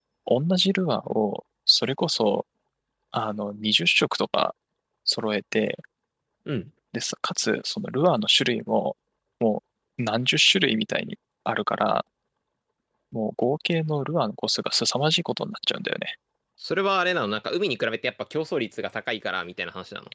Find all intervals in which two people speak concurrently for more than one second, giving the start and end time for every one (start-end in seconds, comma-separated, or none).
none